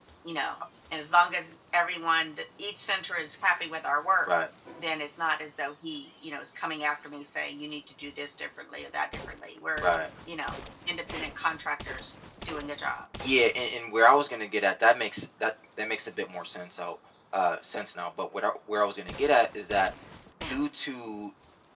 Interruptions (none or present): none